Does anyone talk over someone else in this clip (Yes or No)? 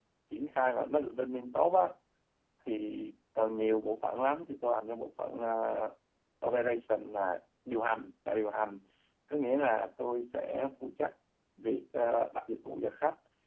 No